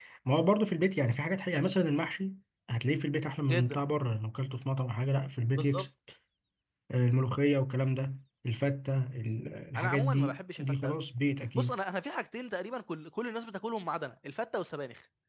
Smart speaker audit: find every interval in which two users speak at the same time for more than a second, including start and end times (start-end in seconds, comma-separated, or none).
9.8-11.0